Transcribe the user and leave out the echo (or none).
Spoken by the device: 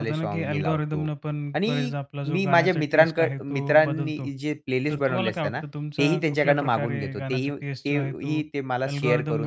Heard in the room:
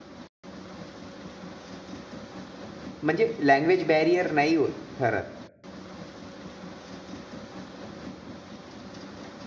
म्हणजे लँग्वेज बॅरियर नाही ओ ठरत.